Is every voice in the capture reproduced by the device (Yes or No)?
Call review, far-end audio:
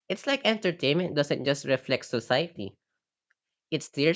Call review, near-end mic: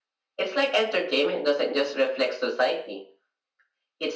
Yes